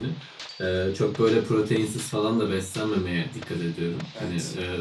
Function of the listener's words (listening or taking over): listening